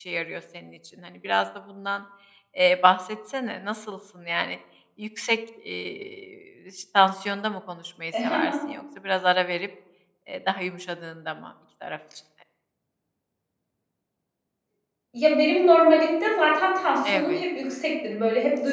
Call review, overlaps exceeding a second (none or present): none